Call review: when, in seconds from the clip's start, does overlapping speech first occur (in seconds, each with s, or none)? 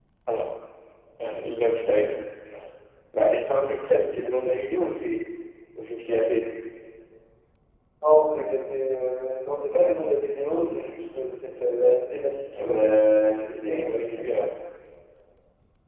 12.6 s